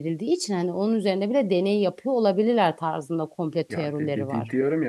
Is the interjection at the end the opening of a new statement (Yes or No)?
Yes